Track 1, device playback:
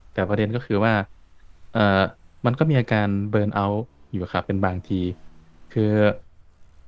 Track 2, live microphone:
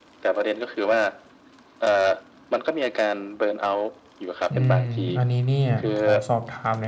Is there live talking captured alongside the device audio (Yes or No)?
Yes